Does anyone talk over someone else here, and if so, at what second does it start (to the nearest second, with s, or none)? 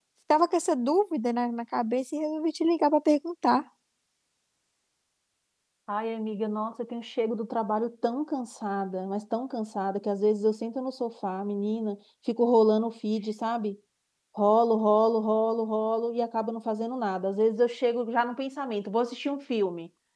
none